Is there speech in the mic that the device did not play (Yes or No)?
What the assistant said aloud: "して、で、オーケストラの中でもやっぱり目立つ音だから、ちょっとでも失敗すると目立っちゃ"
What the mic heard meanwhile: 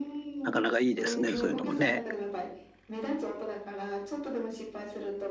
Yes